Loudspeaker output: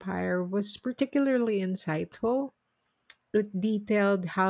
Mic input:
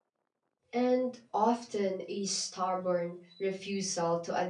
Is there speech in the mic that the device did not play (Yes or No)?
Yes